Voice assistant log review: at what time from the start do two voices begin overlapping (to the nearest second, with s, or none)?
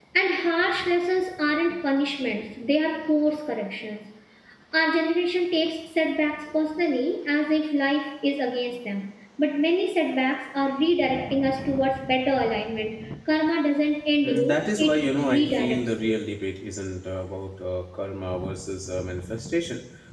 14 s